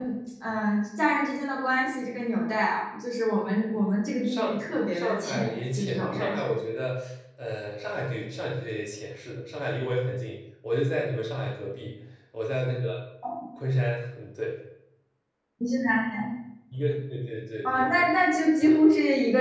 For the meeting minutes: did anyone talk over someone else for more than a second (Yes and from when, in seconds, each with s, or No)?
Yes, from 4.2 s